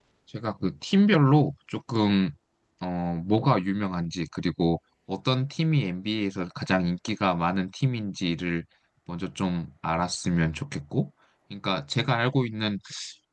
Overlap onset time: none

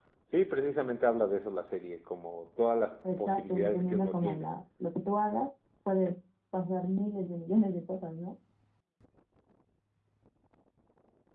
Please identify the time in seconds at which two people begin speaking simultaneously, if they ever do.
3.0 s

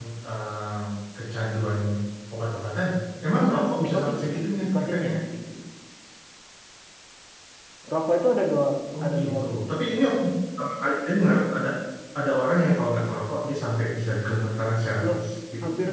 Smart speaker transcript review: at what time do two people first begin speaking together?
3.3 s

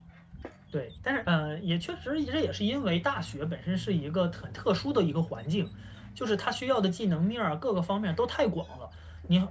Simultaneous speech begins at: none

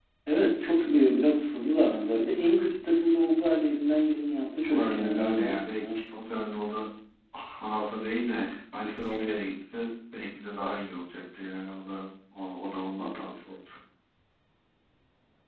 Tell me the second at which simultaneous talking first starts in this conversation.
4.7 s

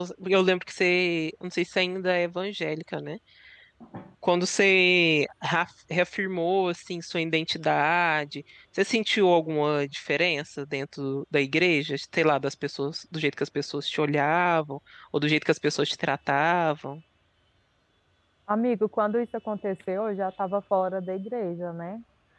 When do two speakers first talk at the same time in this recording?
none

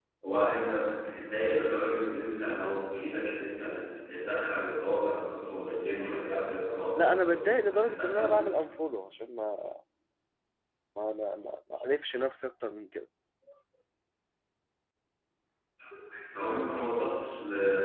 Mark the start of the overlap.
7.0 s

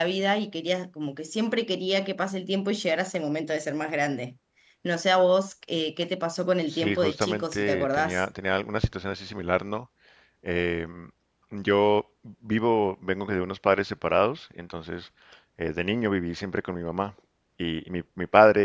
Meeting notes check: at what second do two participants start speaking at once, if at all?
6.7 s

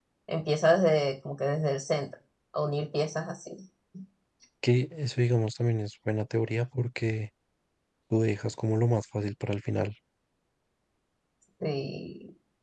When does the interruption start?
none

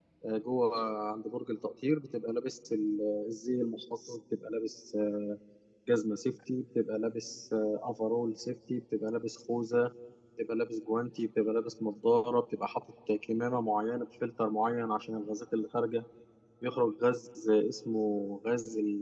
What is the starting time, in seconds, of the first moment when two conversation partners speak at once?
none

